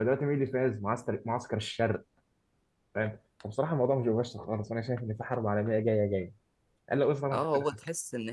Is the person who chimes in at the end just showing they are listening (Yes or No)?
No